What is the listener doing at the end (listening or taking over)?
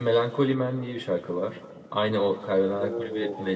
taking over